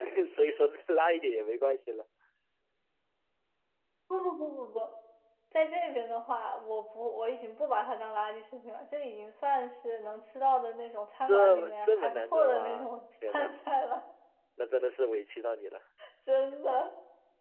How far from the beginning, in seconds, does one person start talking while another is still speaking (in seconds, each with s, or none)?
11.2 s